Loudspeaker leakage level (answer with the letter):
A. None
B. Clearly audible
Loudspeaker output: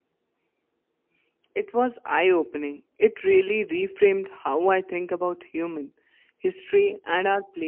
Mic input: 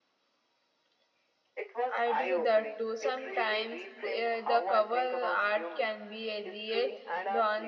B